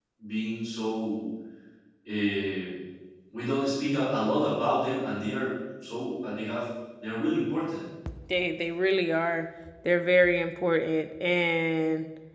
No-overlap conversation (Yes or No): Yes